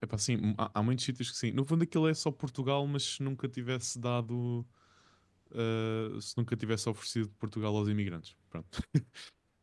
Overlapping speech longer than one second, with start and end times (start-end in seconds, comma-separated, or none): none